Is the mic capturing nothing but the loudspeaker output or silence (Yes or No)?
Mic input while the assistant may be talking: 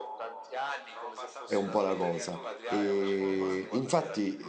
No